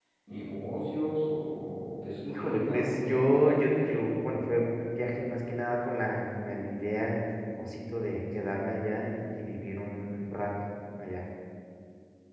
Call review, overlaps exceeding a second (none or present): present